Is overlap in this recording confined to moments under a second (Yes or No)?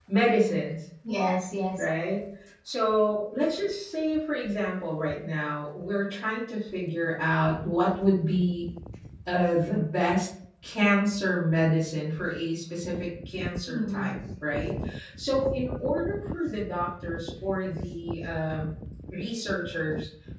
Yes